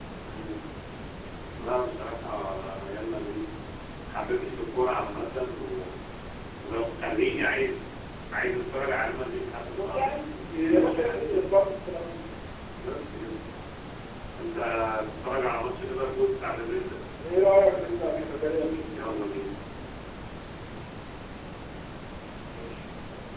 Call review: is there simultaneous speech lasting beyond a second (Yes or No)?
No